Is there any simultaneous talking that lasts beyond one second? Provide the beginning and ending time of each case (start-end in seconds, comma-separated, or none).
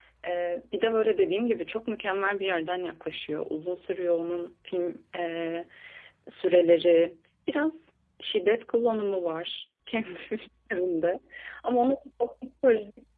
none